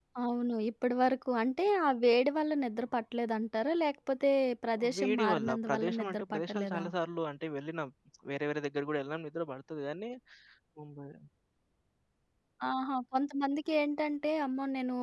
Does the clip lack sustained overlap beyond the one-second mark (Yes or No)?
No